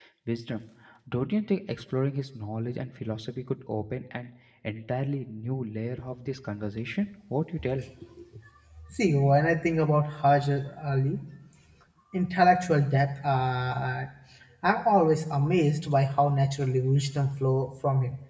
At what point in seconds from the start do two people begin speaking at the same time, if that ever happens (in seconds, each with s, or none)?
none